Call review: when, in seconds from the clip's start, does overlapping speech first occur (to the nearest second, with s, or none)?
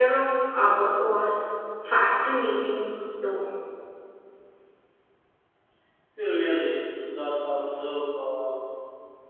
none